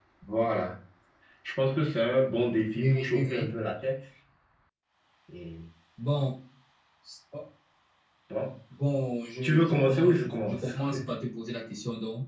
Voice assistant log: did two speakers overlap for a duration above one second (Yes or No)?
Yes